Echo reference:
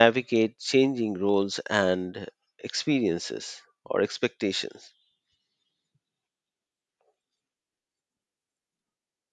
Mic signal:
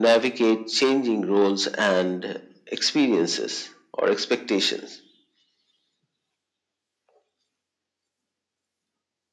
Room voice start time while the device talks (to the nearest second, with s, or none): none